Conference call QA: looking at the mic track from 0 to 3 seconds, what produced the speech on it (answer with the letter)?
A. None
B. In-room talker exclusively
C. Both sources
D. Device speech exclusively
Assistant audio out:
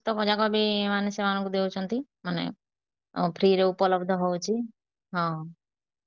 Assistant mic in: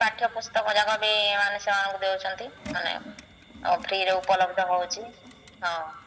D